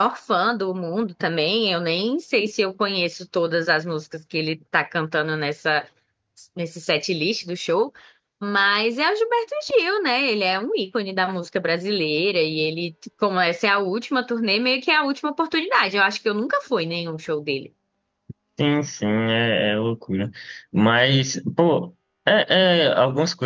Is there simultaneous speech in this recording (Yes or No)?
No